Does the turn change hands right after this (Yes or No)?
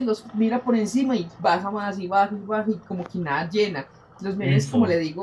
No